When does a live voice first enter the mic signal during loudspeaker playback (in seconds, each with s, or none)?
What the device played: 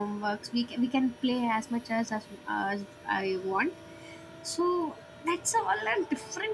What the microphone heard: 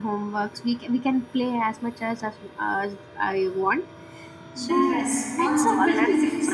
4.5 s